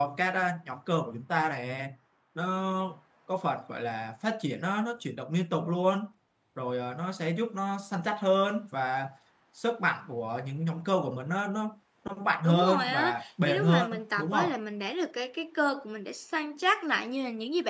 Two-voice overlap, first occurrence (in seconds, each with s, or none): 12.4 s